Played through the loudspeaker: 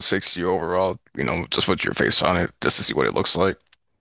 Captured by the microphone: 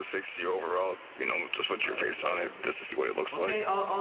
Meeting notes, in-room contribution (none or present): present